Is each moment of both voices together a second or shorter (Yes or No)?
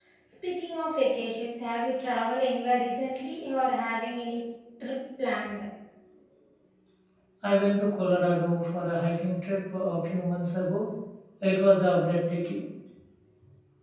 Yes